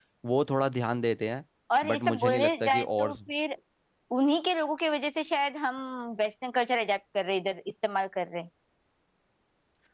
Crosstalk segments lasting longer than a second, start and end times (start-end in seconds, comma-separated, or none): 1.9-3.1